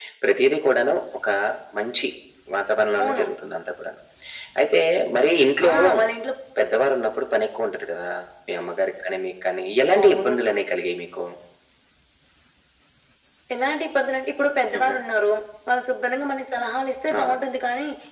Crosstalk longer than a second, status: none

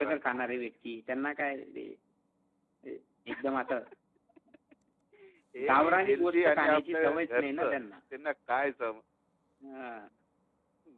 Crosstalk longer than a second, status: present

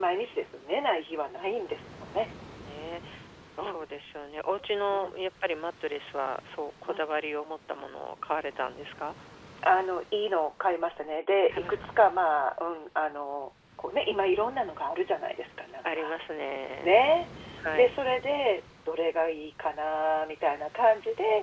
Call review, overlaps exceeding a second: none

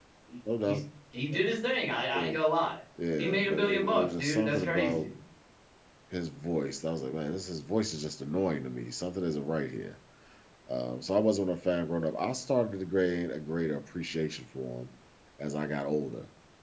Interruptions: present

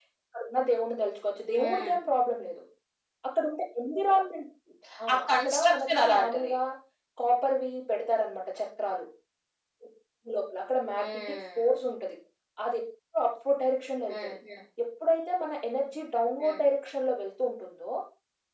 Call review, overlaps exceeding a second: present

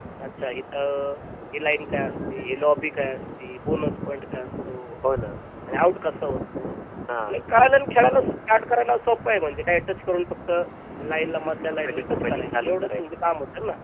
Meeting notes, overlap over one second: present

